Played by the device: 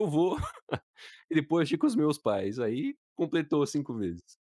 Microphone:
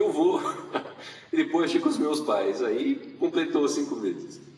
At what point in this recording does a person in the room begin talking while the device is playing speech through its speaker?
none

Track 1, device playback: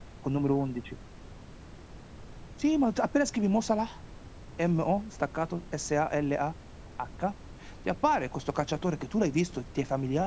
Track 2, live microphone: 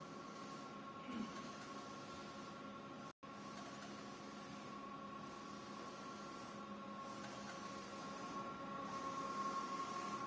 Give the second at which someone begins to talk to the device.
none

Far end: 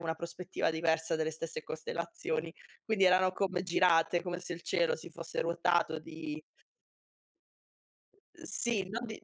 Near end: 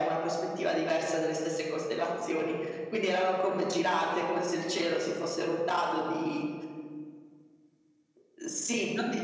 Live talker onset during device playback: none

